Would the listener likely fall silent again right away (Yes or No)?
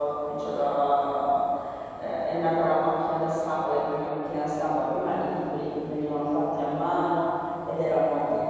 Yes